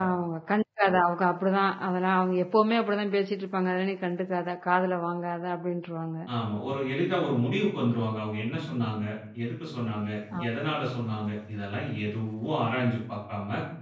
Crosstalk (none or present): none